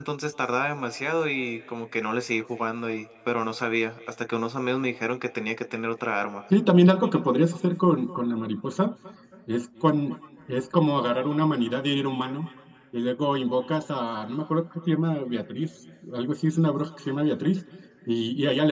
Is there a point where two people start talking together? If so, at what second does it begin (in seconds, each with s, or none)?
none